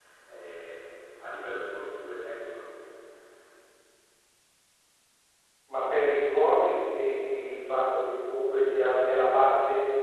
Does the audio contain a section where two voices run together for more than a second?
No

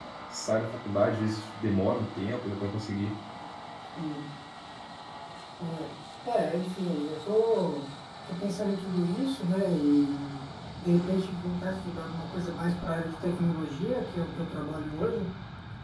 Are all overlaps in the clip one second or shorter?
Yes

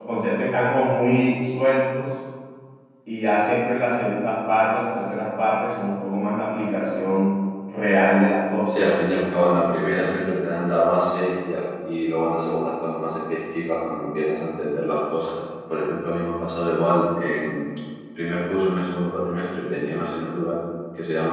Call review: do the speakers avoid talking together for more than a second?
Yes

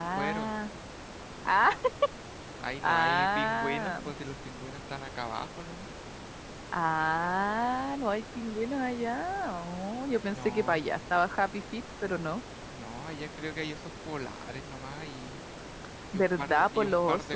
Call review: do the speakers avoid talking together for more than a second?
No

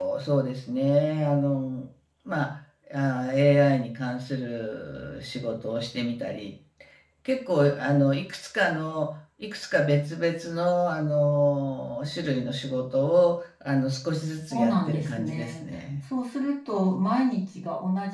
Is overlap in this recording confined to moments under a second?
No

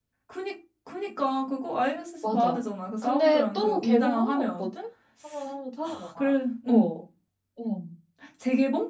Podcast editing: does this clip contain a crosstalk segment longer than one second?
Yes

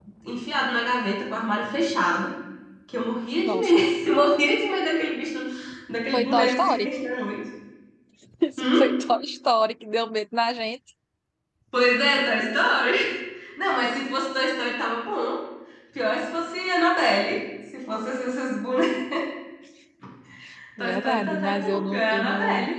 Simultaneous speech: Yes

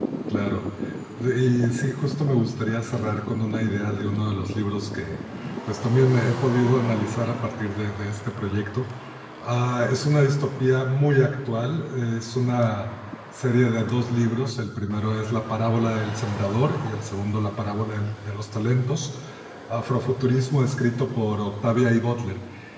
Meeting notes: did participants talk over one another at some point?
No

